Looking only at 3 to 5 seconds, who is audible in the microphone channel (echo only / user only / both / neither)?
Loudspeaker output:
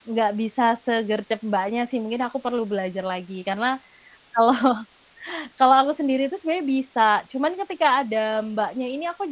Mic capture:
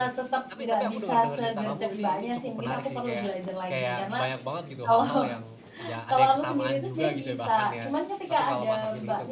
both